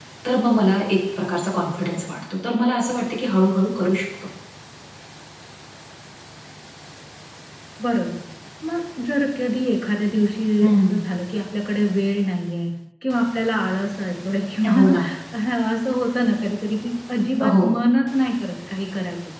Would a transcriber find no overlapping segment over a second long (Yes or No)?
Yes